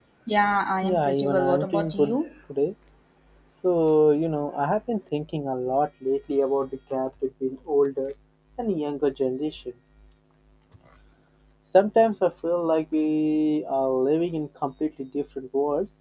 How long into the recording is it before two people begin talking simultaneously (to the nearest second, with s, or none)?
1 s